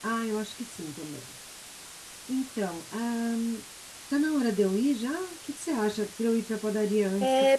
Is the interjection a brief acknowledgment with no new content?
No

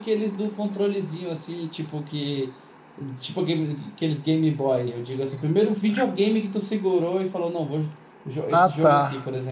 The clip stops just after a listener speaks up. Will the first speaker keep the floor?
No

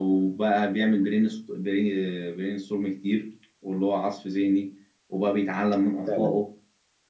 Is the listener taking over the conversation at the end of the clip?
No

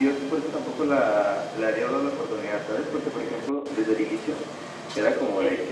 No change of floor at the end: Yes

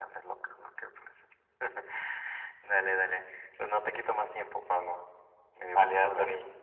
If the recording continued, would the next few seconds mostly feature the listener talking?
Yes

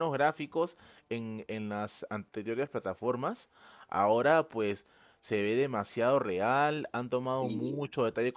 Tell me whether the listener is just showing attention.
Yes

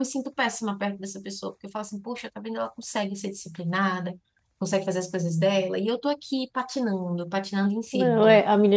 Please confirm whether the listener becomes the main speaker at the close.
Yes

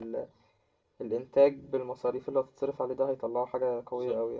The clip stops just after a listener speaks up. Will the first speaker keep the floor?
No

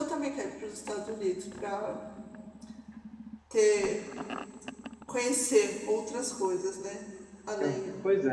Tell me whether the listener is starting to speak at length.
Yes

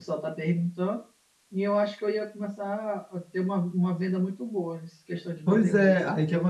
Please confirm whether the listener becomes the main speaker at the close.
Yes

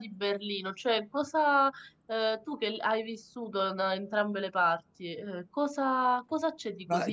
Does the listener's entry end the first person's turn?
Yes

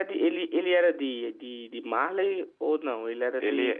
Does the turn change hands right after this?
Yes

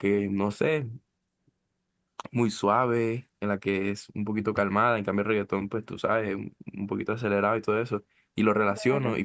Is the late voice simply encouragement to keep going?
Yes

